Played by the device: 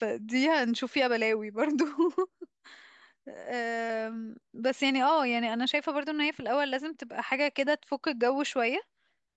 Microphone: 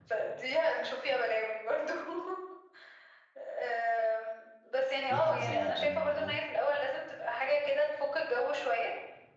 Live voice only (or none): في حجز أقل أه